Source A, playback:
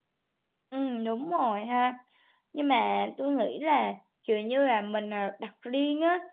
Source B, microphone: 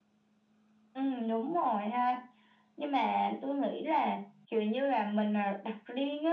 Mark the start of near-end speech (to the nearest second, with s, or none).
none